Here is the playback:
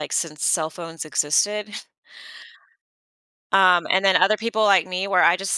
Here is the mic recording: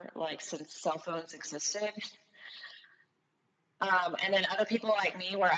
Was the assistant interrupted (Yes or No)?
No